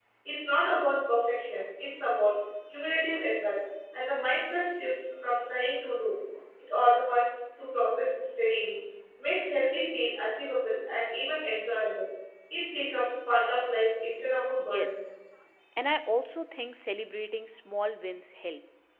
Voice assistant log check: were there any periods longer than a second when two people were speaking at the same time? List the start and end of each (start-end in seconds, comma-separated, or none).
none